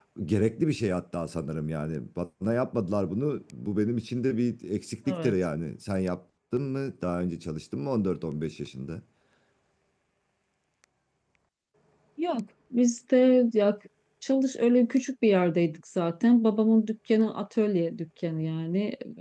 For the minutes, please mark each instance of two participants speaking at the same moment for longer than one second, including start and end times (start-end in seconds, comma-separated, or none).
none